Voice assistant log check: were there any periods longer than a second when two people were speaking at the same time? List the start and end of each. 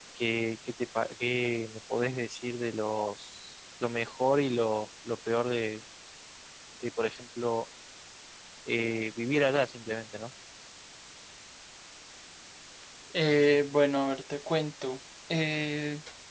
none

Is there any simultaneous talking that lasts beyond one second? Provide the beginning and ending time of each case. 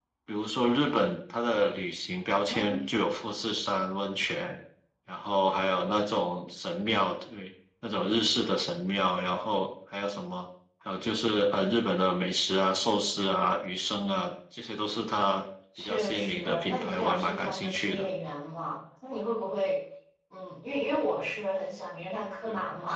15.8-18.1

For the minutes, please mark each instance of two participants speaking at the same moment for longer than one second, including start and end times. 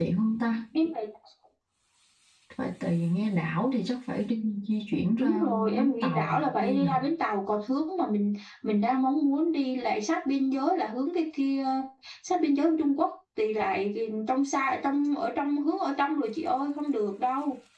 5.2-6.9

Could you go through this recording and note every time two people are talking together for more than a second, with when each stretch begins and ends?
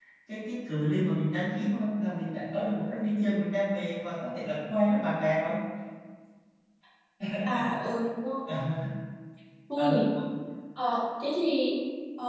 none

